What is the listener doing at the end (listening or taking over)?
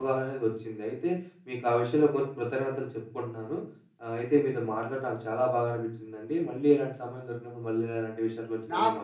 taking over